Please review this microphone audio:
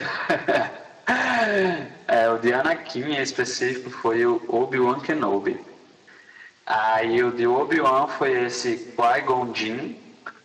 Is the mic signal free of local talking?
Yes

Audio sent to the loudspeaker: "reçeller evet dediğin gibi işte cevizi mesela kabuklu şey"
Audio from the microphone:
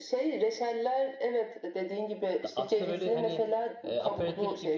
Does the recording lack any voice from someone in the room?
No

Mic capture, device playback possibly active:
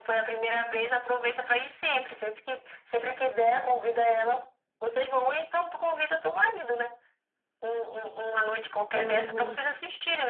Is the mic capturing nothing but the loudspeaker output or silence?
No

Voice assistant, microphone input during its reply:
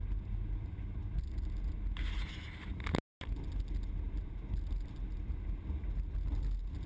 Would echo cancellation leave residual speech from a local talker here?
No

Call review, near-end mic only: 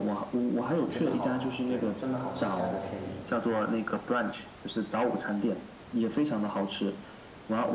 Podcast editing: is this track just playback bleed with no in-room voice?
No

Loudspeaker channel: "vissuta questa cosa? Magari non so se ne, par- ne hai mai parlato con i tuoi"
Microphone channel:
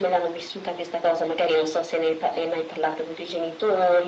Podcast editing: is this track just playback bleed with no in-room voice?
Yes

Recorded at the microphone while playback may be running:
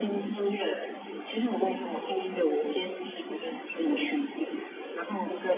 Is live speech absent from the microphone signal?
Yes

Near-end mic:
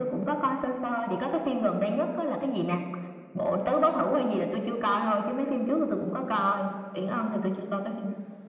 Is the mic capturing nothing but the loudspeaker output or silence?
Yes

